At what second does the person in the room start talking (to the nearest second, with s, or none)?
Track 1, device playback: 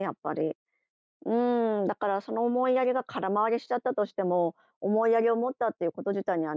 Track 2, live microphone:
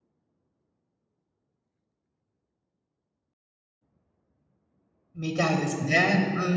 5 s